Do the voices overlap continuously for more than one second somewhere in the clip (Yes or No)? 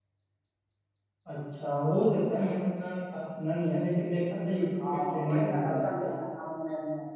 Yes